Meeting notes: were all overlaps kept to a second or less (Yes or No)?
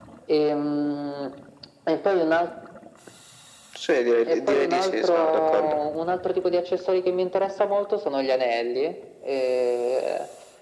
No